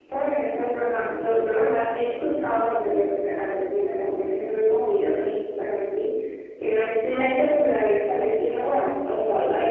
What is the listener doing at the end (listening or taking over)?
listening